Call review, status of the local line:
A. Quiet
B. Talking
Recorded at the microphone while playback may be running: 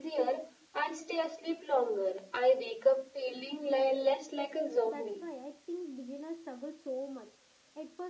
B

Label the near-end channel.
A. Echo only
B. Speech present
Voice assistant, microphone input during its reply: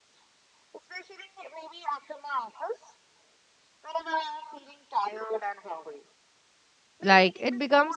B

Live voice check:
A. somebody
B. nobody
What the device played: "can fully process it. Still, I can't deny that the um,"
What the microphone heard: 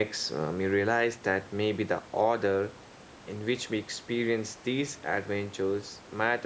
A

